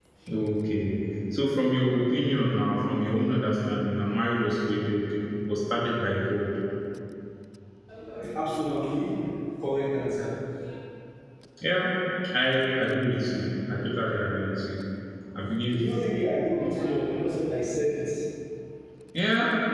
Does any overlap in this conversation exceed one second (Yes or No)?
No